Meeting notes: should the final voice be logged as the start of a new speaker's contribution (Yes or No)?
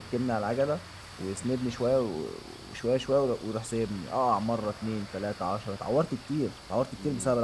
Yes